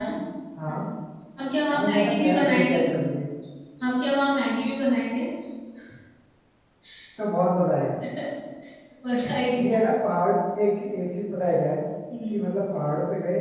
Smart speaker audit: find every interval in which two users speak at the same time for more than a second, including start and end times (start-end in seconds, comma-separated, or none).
1.7-3.0